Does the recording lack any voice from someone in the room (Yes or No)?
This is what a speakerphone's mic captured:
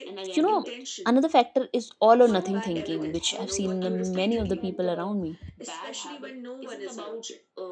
No